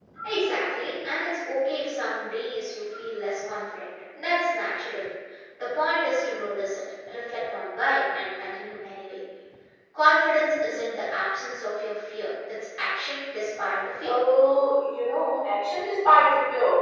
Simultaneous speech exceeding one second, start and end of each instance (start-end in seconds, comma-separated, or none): none